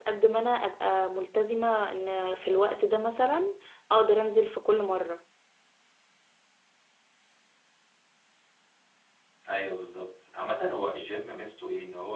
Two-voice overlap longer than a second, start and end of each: none

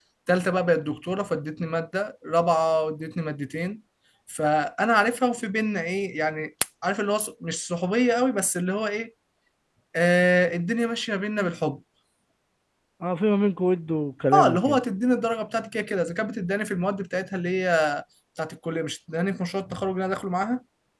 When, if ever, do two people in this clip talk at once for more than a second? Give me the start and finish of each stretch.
none

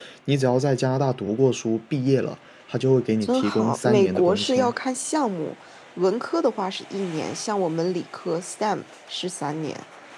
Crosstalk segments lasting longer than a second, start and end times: 3.2-4.7

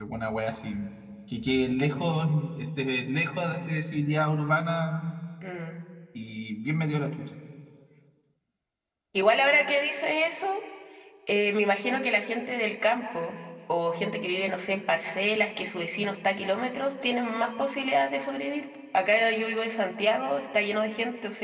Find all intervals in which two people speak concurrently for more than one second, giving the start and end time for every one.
none

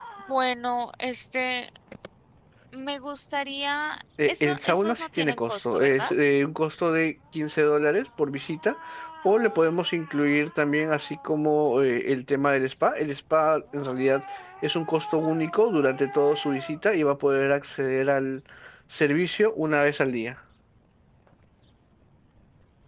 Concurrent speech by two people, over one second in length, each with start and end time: 4.3-6.1

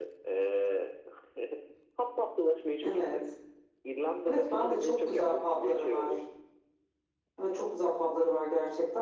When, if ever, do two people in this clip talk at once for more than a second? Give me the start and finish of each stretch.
4.3-6.1

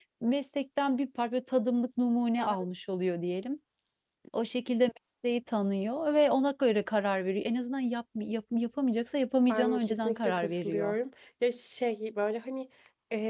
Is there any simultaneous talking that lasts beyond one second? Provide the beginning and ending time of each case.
9.5-10.9

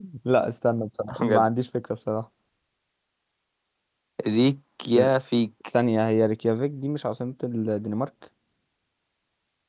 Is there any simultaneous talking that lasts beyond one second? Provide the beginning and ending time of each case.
none

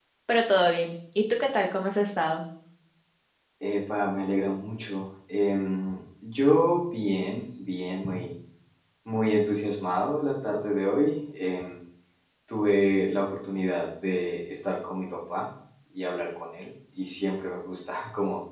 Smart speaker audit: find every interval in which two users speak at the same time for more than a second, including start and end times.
none

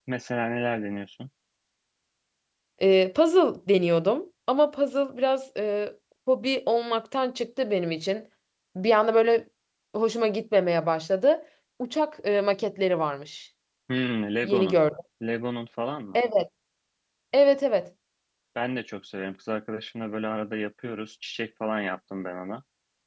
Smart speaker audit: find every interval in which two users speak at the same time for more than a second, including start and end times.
none

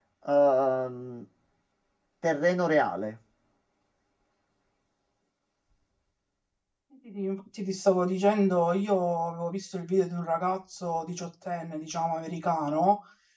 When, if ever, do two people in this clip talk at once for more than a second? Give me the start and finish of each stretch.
none

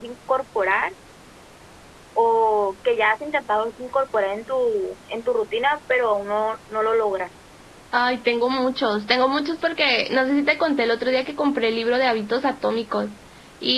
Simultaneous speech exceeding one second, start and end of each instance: none

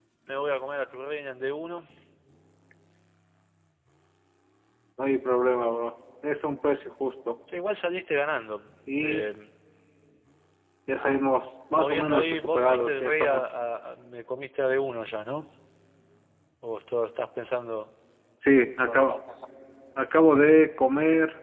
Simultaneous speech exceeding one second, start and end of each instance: 11.7-13.4

